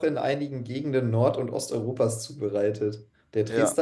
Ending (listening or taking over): listening